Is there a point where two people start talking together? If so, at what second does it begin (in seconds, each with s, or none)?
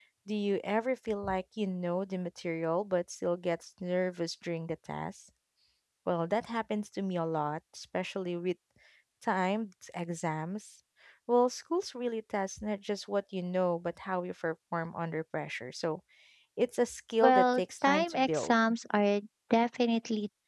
17.2 s